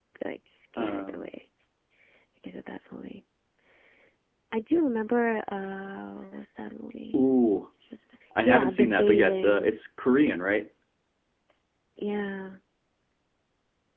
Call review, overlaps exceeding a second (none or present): present